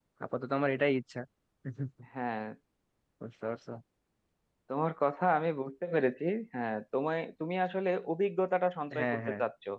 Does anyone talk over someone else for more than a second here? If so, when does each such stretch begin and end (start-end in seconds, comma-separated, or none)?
none